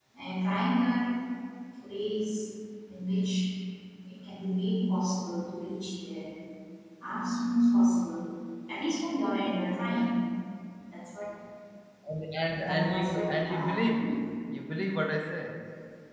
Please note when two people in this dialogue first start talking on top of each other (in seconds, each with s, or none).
12.7 s